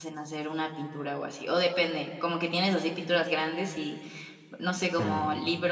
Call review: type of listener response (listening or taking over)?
listening